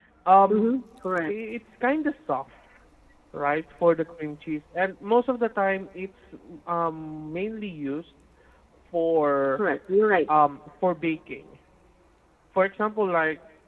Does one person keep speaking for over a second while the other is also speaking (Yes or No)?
No